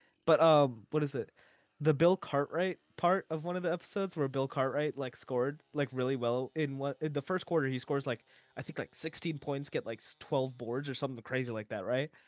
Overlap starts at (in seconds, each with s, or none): none